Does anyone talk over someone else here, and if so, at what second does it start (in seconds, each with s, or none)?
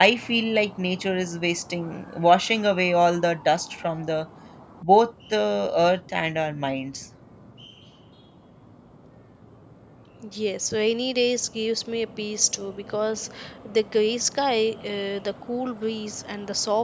none